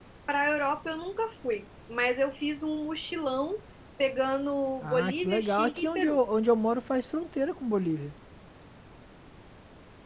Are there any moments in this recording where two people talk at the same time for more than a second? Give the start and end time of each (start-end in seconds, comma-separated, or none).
4.8-6.2